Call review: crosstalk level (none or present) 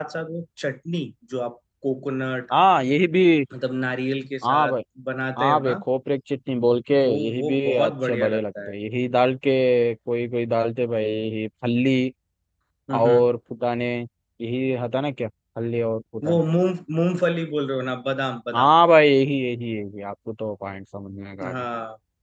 present